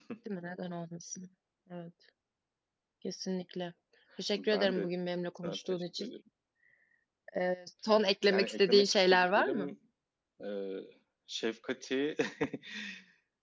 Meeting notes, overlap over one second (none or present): present